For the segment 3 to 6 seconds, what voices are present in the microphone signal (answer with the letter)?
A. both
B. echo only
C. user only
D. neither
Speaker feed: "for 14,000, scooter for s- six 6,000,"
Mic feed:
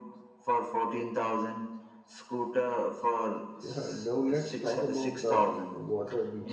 A